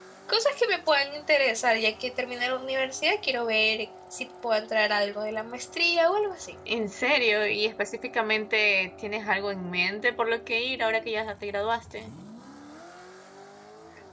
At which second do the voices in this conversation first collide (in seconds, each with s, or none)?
none